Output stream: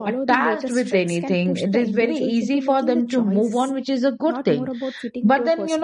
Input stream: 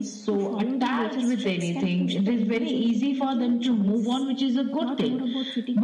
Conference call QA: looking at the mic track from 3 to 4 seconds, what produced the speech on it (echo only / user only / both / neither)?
echo only